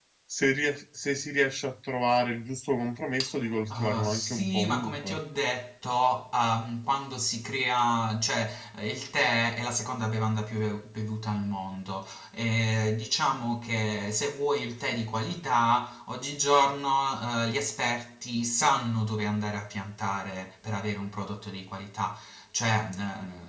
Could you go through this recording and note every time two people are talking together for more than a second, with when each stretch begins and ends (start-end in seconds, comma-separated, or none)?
3.7-5.2